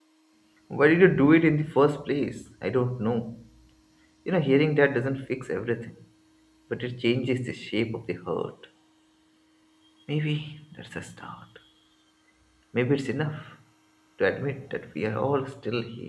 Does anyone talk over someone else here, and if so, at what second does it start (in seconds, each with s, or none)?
none